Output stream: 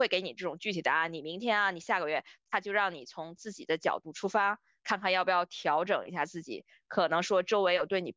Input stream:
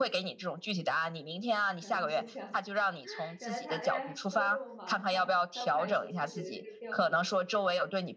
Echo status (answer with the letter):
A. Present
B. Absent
A